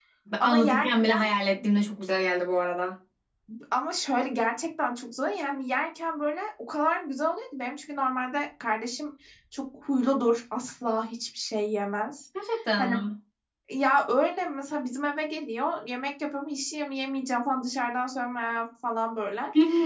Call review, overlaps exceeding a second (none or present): none